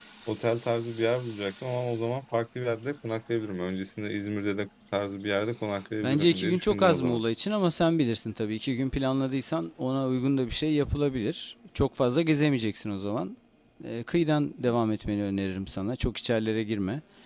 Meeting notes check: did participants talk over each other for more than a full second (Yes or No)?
Yes